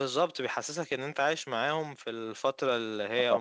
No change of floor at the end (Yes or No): Yes